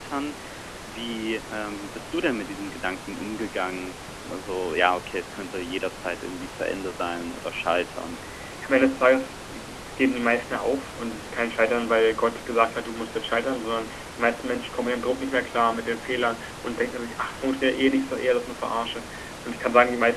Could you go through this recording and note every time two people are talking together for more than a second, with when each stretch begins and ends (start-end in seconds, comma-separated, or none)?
none